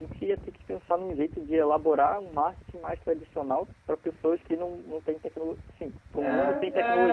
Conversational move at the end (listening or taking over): taking over